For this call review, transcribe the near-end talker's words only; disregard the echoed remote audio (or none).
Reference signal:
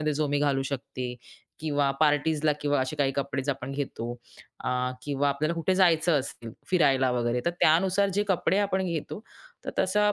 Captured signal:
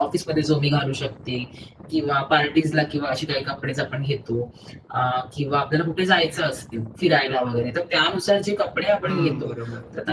हं, बरोबर.